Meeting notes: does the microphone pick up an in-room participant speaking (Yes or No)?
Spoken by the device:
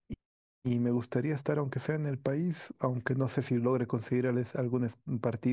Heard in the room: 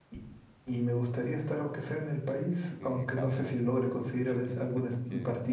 Yes